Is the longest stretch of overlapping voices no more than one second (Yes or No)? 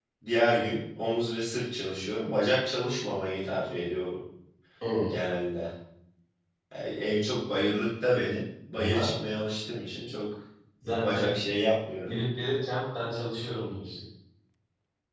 Yes